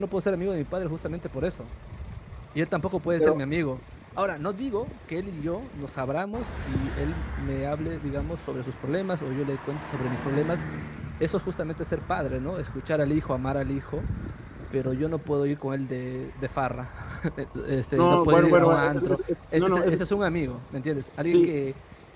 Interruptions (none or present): present